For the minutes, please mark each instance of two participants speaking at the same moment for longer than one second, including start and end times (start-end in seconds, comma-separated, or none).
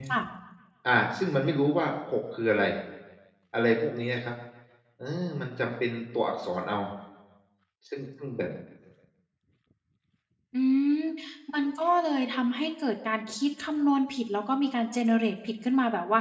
none